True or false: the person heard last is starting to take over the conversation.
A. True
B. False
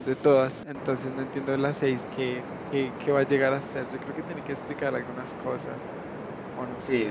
A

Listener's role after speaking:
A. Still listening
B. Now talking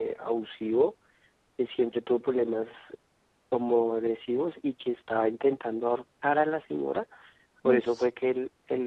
A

